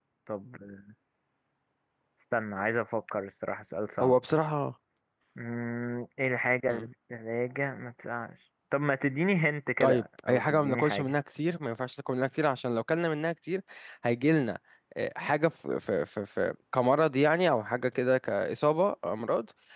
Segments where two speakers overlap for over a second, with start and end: 9.8-11.1

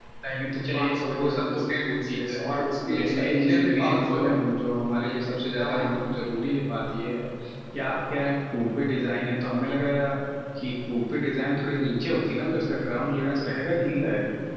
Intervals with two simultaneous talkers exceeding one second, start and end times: 0.7-2.4, 3.0-4.3

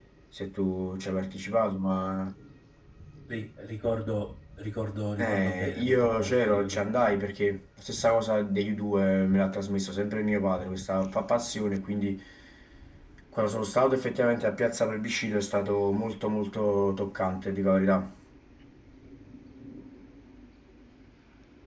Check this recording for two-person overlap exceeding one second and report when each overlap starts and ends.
5.2-6.9

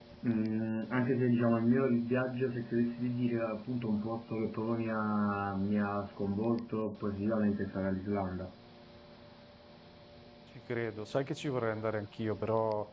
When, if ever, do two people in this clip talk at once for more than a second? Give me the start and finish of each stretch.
none

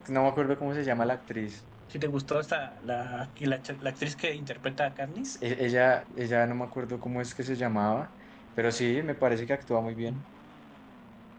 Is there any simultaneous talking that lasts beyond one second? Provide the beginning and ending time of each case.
none

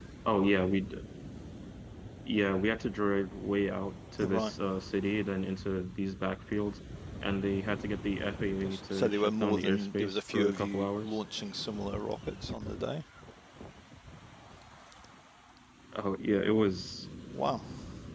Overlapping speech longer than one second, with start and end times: 8.6-11.2

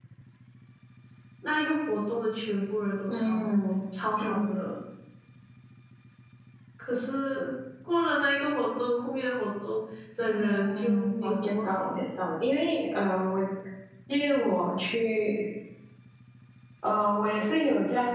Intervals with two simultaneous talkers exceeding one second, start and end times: 10.3-12.0

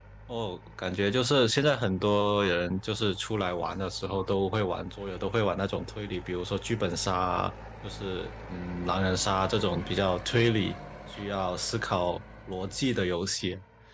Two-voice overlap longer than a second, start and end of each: none

